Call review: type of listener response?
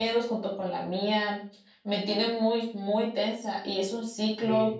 listening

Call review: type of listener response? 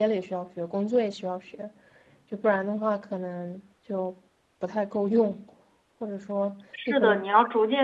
taking over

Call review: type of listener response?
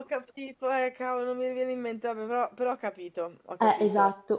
taking over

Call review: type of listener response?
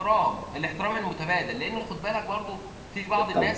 listening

